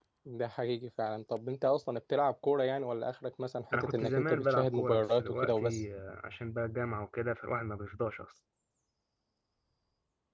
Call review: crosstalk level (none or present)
present